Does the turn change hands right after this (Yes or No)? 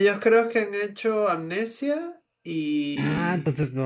Yes